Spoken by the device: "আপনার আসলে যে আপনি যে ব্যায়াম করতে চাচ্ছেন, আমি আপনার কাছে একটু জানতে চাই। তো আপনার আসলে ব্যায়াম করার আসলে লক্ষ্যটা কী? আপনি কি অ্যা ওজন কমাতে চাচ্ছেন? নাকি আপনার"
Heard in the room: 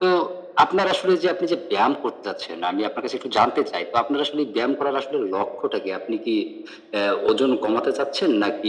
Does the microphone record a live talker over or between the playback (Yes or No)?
No